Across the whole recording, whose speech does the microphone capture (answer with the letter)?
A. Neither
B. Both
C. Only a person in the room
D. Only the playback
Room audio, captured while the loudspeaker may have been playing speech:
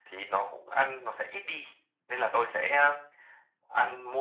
D